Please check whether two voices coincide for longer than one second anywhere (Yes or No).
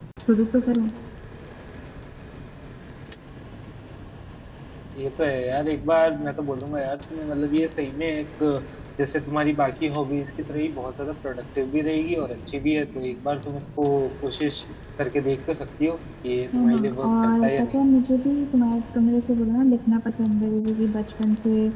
Yes